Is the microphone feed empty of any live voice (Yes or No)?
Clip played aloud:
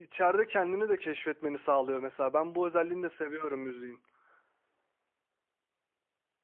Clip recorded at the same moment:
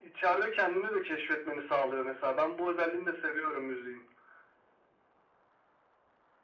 Yes